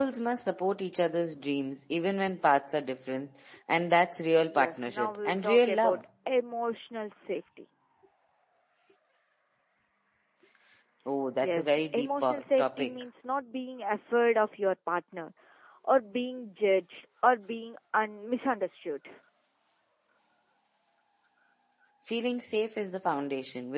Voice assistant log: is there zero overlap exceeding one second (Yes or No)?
No